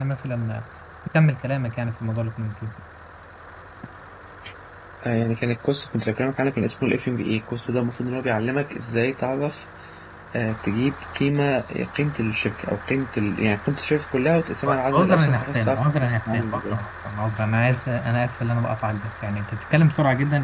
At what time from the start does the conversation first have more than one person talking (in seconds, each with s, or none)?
14.9 s